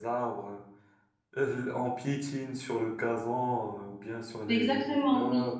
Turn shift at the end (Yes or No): Yes